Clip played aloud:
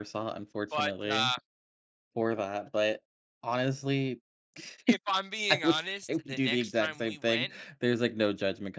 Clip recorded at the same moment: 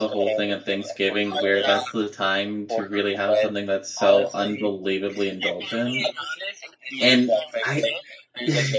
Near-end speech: present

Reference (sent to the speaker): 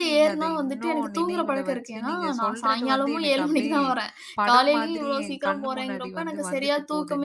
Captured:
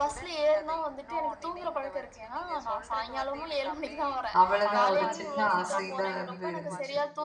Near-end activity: present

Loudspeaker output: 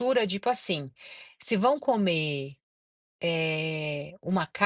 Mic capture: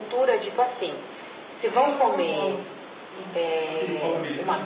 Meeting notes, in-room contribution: present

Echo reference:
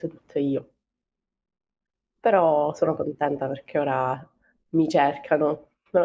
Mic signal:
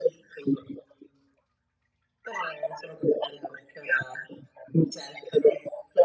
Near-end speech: none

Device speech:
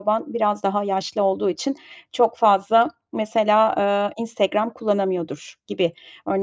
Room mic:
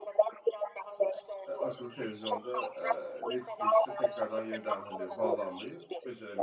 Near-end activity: present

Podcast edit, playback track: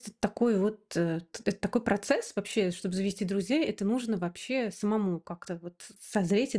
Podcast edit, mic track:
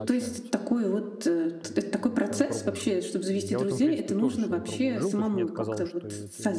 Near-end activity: present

